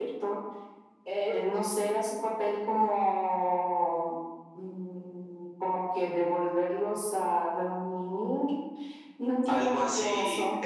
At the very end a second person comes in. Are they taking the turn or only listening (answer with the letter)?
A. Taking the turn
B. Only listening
A